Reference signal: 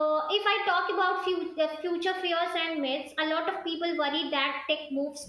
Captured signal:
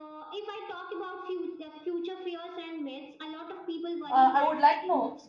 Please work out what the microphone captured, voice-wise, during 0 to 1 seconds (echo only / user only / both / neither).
echo only